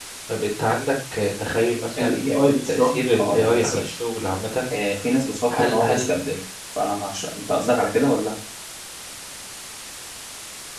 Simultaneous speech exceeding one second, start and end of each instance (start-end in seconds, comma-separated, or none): 2.0-3.9